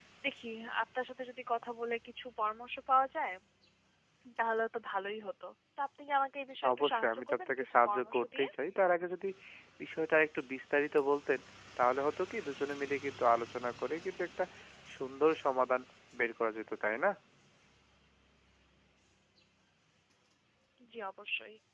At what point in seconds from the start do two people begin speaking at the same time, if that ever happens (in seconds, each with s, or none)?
6.6 s